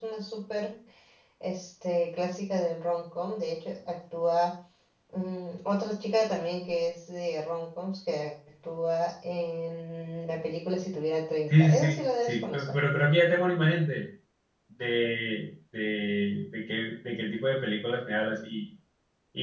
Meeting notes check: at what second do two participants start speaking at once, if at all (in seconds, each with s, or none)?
11.5 s